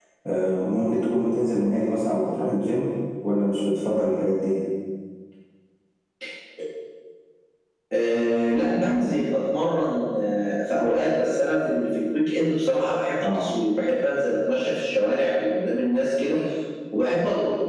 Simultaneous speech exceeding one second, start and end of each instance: none

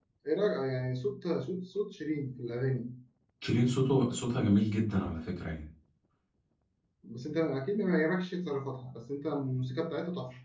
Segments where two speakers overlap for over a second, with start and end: none

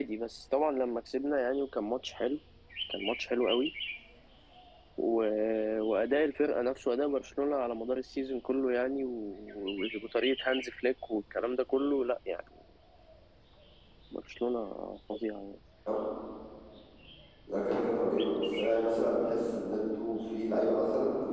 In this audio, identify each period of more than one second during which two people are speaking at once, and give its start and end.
none

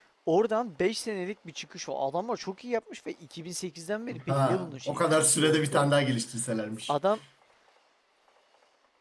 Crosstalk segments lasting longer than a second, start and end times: 4.3-5.9

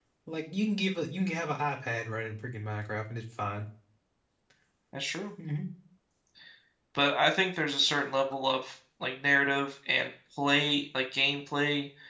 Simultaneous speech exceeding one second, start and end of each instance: none

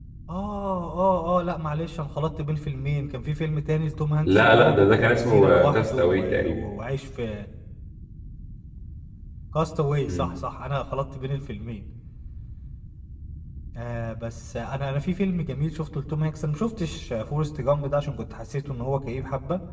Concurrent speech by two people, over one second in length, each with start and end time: 4.2-6.6

